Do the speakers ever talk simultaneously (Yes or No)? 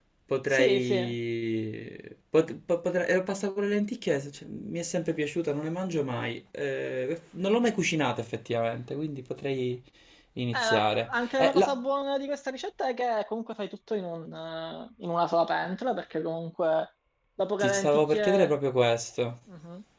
Yes